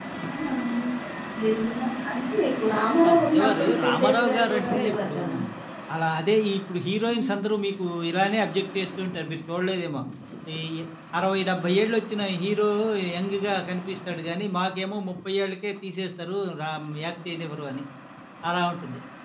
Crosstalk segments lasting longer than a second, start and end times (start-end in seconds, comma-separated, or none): 3.1-5.3